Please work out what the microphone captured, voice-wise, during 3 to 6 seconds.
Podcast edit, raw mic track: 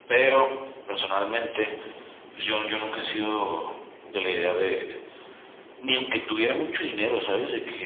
echo only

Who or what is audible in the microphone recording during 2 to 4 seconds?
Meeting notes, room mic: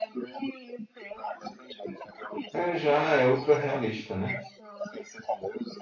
both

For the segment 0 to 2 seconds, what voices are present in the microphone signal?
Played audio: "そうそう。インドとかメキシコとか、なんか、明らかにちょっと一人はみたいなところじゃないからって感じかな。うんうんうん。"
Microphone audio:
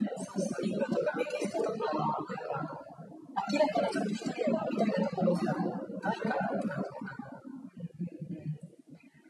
echo only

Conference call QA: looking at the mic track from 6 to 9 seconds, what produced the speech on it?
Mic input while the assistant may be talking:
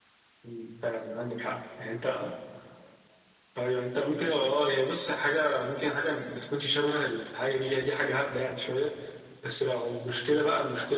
echo only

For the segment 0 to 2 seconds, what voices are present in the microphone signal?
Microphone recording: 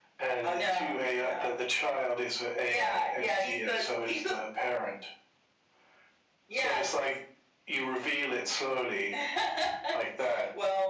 echo only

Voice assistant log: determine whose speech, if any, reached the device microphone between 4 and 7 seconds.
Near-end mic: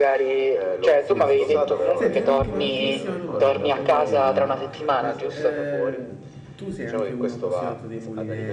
both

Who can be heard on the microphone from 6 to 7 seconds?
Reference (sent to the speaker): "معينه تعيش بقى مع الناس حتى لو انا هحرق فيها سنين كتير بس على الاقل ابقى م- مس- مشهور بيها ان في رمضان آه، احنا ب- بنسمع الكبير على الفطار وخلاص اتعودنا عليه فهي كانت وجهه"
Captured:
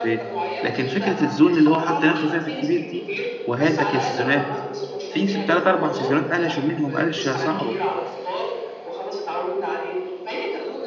both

